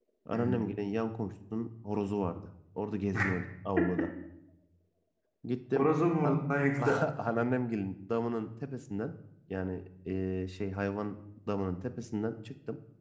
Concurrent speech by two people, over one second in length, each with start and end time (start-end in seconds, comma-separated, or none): none